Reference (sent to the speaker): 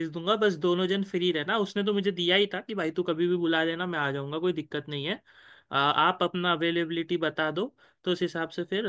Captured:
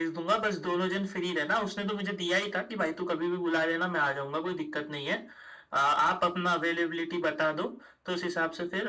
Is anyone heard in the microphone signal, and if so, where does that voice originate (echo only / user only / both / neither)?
echo only